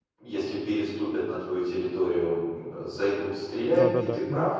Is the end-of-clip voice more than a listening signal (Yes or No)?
No